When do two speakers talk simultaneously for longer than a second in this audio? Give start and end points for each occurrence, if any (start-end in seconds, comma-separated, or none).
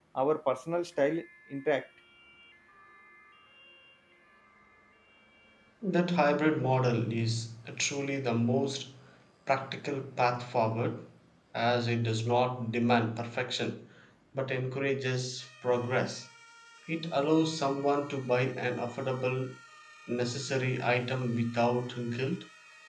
none